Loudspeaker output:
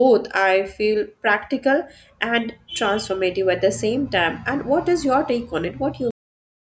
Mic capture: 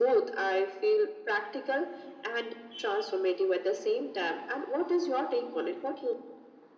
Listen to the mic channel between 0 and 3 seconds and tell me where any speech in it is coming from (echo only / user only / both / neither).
echo only